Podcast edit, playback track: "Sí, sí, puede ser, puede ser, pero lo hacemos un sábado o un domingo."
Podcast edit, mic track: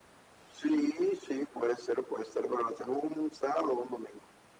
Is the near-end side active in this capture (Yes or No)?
No